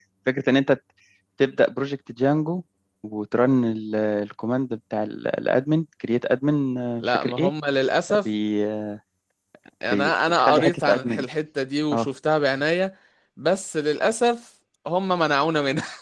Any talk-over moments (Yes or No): Yes